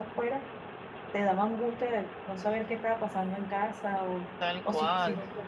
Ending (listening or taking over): taking over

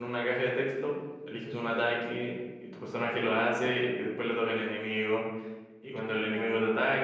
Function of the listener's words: listening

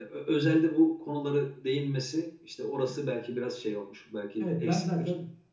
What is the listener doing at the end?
taking over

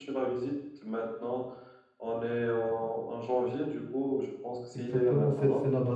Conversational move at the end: taking over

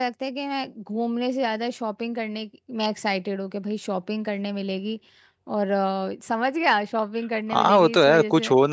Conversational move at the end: taking over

